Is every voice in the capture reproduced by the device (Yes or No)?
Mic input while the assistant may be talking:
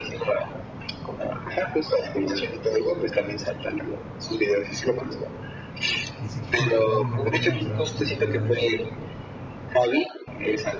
No